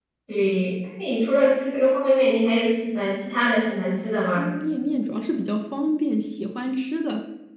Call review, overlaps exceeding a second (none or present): none